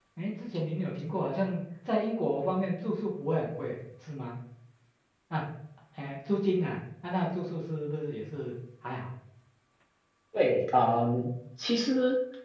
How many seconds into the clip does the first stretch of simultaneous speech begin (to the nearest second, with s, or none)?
none